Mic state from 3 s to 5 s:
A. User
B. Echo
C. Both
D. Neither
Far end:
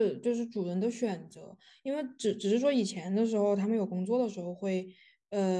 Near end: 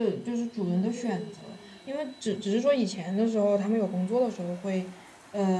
B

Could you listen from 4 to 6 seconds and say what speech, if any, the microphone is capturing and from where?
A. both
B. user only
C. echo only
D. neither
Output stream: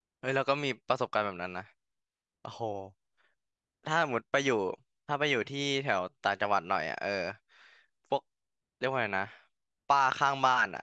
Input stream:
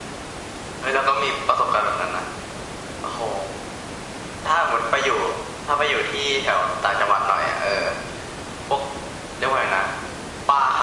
C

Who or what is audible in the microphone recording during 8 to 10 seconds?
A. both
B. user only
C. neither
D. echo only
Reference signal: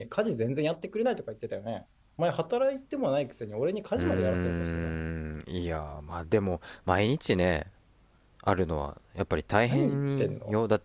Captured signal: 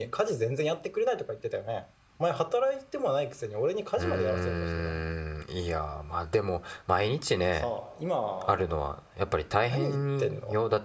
A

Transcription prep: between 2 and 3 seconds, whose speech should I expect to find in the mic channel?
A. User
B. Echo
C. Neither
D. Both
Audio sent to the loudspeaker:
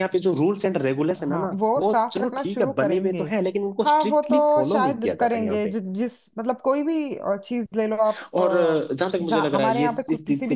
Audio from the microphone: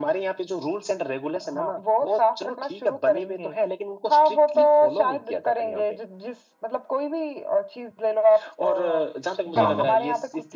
B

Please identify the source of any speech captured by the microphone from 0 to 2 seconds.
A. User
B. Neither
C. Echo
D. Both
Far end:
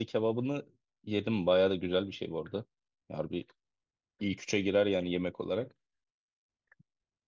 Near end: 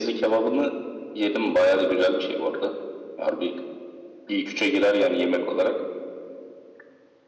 C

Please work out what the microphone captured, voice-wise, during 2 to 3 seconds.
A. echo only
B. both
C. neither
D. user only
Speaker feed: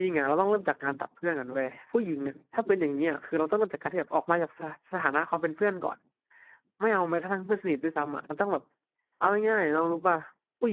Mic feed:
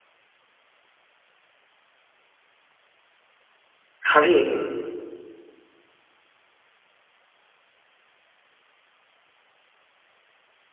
C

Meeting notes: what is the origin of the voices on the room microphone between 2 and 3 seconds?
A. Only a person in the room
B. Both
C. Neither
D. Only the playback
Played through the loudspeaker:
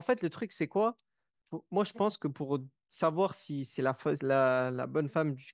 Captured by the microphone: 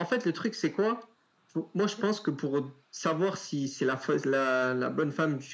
D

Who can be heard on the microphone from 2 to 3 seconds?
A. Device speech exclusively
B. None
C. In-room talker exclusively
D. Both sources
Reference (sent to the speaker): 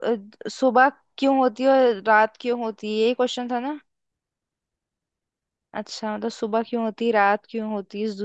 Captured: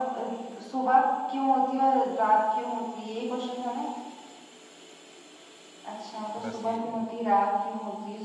A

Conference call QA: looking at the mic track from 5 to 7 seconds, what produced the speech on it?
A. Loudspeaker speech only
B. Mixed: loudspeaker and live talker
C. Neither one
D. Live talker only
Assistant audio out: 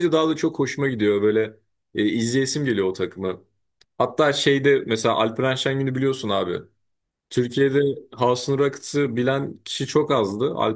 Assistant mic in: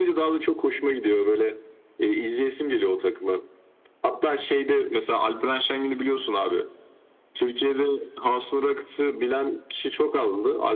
A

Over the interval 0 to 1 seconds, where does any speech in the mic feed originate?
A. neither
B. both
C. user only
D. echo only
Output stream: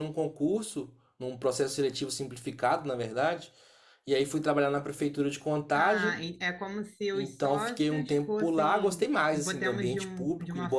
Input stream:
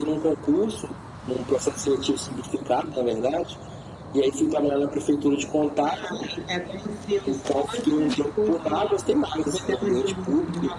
D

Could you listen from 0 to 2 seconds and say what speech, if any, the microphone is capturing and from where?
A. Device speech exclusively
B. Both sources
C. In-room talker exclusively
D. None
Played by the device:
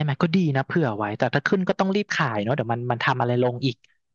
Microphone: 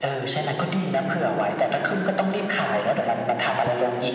A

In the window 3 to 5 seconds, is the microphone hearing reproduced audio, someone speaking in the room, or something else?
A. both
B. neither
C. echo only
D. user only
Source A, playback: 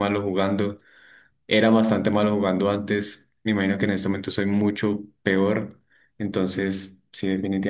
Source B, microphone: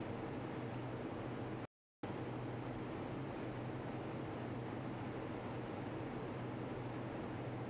B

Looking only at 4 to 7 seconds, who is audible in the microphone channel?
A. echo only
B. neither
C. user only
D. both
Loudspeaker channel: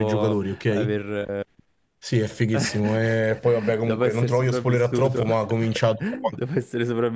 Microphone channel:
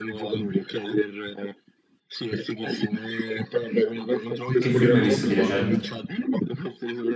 D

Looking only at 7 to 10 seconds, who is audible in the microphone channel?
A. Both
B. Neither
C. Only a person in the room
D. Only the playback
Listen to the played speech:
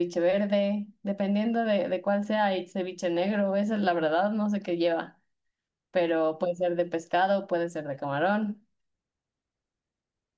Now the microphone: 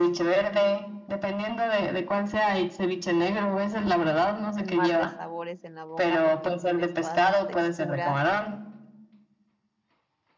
A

